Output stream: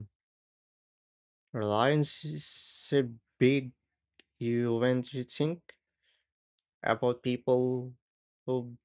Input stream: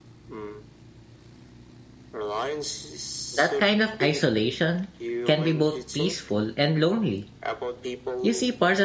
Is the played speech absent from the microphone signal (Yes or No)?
No